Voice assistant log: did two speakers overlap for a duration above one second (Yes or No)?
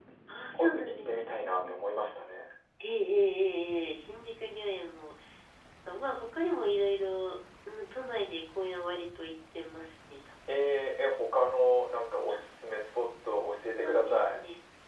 Yes